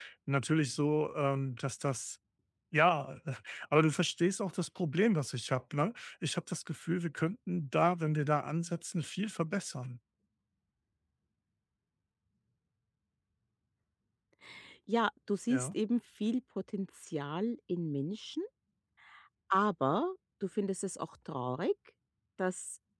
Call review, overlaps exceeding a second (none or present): none